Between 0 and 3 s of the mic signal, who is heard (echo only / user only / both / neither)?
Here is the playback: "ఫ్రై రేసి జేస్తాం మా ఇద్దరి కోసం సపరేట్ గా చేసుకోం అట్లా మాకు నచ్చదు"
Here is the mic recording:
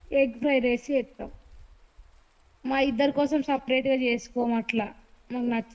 echo only